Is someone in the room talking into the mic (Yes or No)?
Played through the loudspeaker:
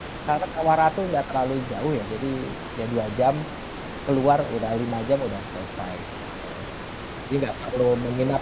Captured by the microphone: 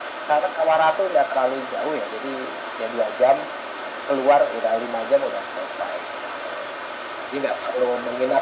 No